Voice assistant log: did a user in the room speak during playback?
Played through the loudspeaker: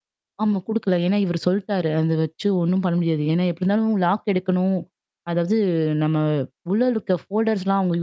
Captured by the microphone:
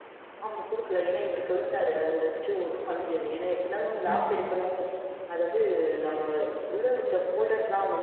Yes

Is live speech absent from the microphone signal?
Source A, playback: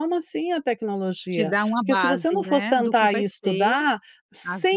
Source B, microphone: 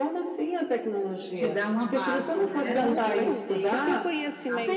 No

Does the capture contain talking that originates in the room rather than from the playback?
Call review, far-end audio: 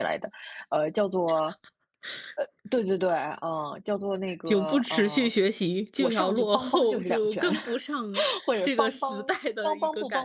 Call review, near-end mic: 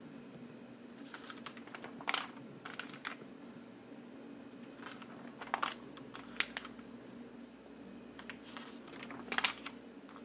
No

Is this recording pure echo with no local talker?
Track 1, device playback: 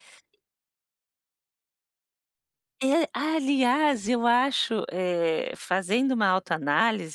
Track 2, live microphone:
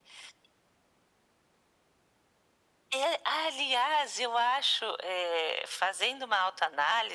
Yes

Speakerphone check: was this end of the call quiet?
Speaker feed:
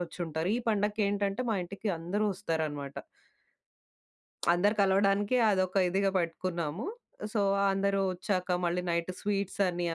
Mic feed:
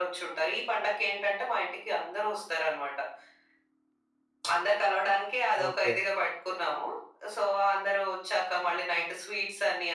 No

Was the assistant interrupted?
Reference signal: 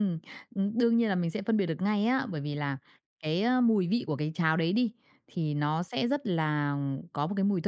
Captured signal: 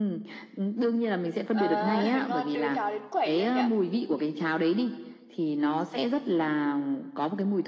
Yes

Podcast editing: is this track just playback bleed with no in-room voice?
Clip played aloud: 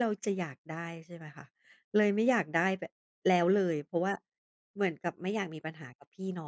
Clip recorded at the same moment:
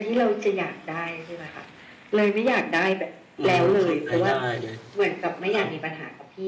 No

